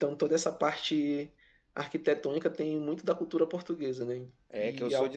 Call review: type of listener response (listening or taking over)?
taking over